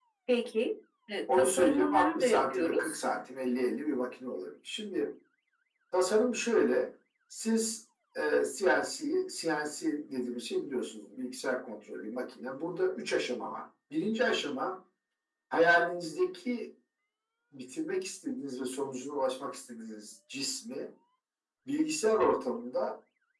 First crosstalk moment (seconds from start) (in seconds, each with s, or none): 1.3 s